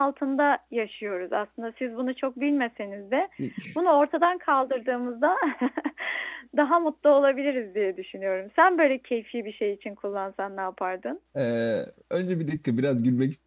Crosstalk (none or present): none